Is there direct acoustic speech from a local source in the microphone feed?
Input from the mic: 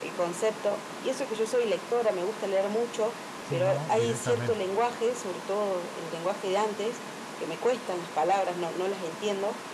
Yes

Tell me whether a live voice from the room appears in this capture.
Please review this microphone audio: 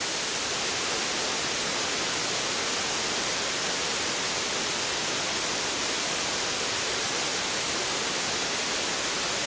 No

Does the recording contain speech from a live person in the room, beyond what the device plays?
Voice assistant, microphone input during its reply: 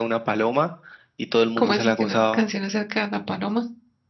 Yes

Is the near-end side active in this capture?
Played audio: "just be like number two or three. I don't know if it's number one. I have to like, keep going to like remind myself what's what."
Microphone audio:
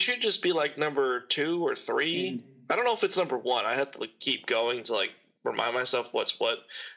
Yes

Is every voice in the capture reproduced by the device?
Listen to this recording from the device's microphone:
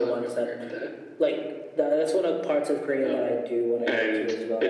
Yes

